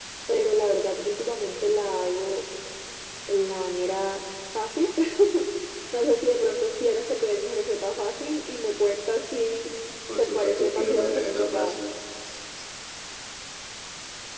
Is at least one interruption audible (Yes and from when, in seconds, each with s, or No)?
Yes, from 10.2 s